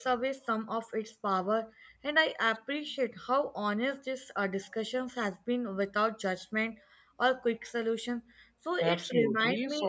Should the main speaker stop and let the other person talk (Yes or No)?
Yes